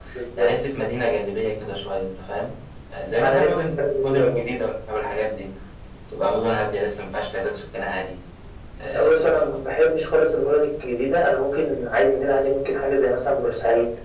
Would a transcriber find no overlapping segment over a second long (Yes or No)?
No